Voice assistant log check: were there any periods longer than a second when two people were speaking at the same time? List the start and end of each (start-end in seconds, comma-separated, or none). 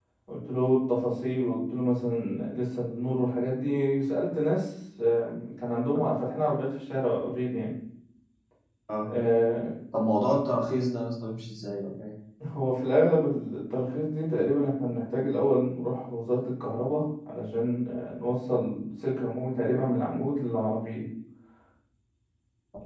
none